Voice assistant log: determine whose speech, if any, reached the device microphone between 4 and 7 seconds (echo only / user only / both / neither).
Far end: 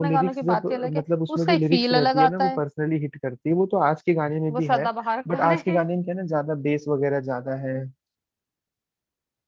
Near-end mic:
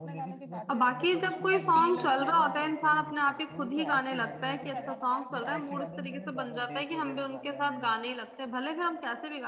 both